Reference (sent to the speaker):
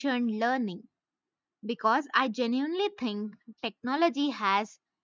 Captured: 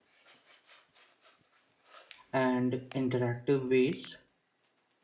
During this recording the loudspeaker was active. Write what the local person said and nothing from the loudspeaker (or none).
and interactive ways.